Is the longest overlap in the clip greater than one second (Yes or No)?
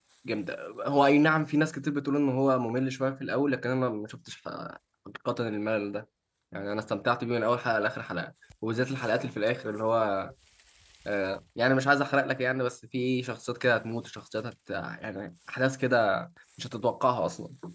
No